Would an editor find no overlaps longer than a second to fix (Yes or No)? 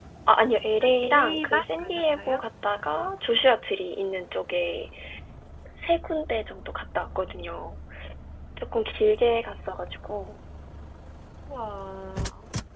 No